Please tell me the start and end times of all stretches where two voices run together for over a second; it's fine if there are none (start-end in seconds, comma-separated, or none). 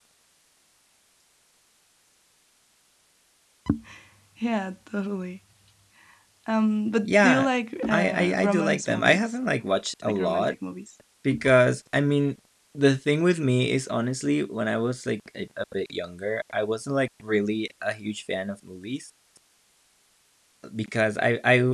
7.9-9.4